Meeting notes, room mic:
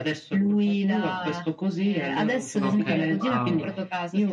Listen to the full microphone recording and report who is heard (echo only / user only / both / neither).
both